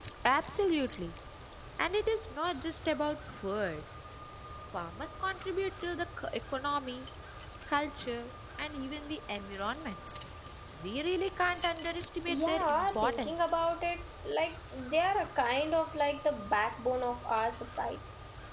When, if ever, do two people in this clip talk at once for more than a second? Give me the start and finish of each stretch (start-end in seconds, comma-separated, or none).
12.3-13.5